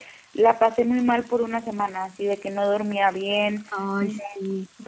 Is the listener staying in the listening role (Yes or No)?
Yes